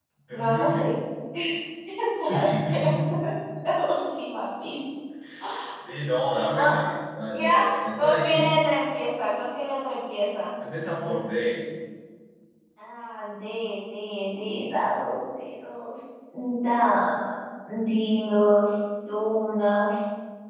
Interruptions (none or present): present